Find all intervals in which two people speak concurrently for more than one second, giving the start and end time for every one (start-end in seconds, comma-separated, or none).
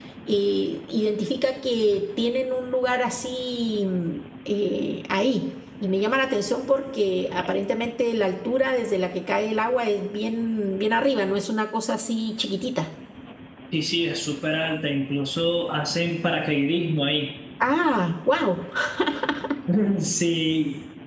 none